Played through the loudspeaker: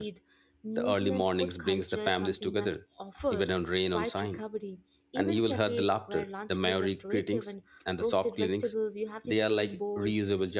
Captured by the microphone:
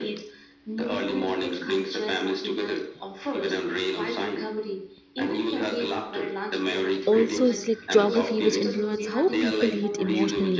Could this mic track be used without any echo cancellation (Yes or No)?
No